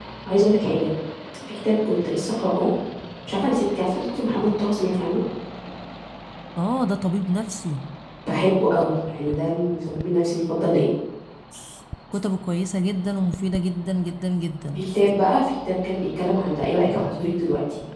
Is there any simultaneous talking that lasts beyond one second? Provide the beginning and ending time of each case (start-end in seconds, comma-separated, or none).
none